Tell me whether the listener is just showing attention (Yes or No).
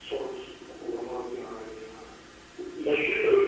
No